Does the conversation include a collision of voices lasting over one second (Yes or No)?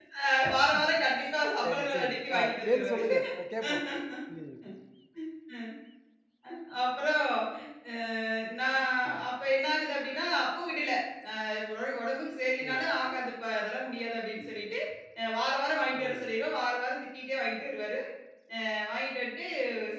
Yes